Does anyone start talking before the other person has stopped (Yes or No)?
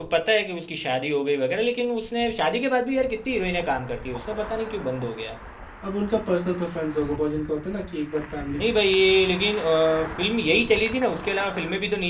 No